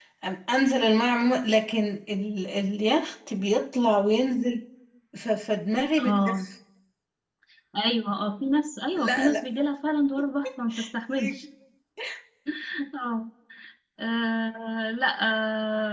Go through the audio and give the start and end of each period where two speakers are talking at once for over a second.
none

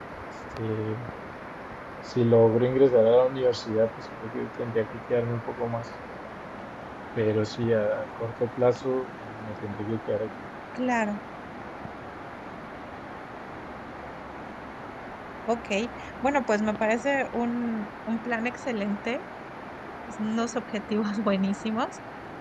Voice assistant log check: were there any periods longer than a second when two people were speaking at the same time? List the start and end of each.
none

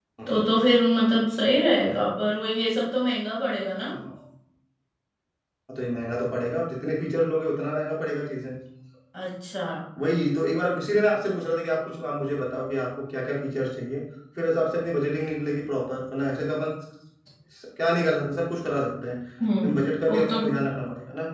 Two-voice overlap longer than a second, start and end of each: none

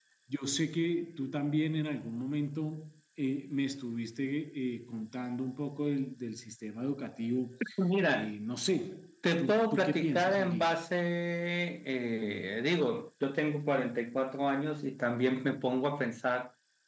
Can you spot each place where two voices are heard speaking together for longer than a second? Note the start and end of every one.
9.4-10.7

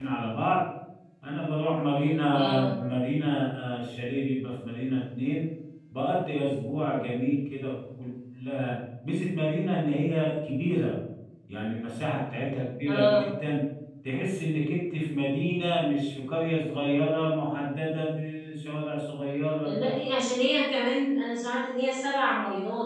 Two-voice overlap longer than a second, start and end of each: none

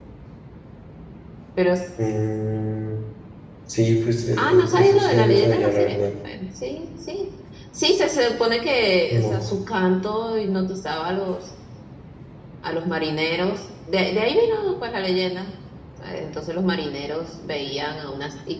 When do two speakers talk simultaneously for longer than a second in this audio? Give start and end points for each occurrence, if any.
4.4-6.0

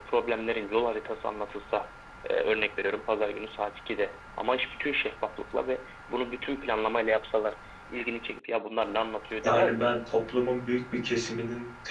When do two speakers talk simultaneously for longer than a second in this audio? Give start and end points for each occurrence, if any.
none

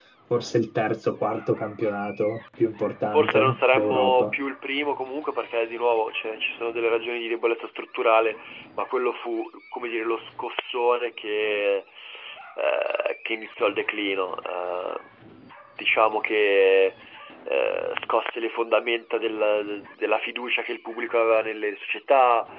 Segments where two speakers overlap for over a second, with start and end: 3.1-4.3

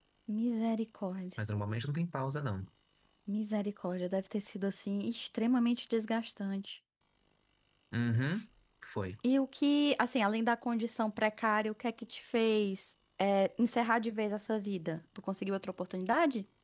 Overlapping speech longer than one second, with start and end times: none

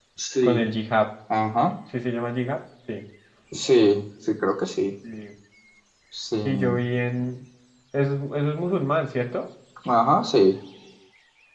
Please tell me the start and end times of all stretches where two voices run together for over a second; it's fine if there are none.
none

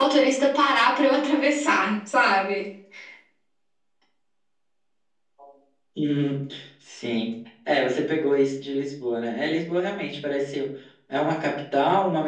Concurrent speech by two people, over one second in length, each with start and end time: none

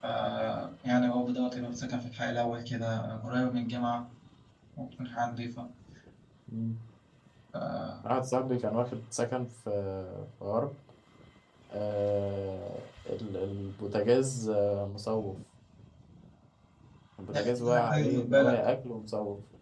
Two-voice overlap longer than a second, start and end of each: 17.3-18.6

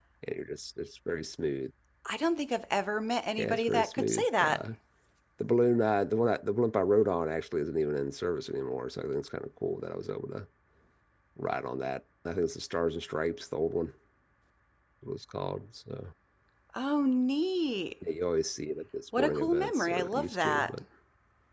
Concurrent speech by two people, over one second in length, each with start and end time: 3.4-4.6, 19.2-20.8

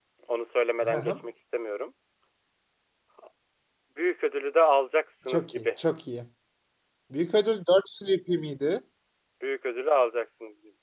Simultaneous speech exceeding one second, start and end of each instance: none

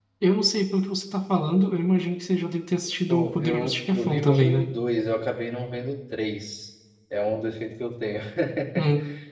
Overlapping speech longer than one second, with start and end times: 3.1-4.7

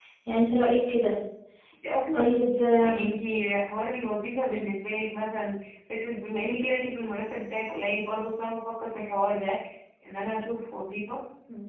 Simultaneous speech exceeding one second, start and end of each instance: none

